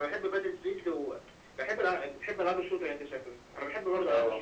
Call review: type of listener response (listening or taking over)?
listening